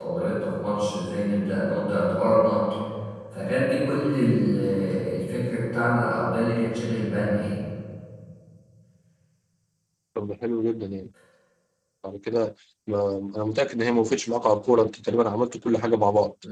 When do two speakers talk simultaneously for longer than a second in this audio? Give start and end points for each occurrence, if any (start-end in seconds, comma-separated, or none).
none